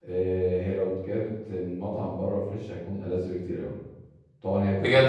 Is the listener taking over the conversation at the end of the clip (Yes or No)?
No